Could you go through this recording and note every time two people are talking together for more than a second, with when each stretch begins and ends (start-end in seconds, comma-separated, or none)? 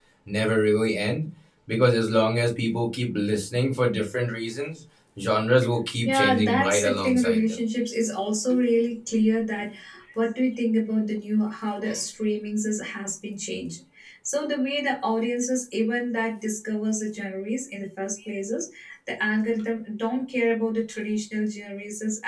6.0-7.6